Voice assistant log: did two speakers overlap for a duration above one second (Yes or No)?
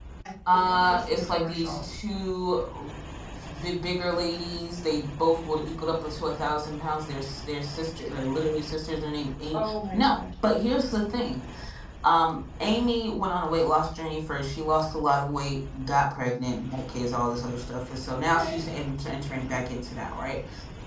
Yes